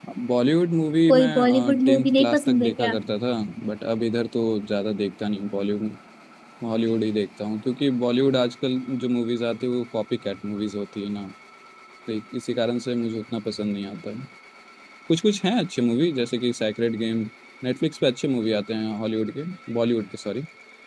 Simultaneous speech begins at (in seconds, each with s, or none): 1.1 s